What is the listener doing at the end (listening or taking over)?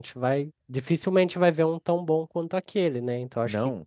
listening